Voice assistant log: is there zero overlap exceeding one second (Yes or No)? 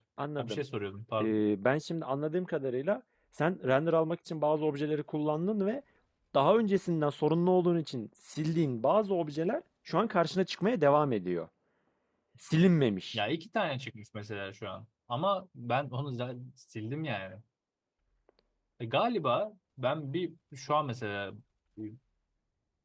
Yes